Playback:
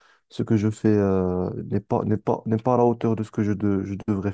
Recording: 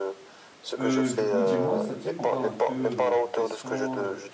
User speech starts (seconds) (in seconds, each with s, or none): 0.8 s